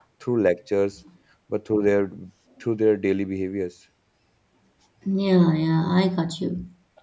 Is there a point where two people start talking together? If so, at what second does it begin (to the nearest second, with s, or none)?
none